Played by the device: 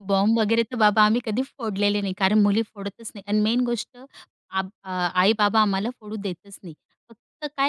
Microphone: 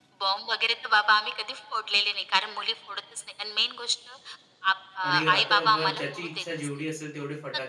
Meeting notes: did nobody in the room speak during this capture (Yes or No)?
No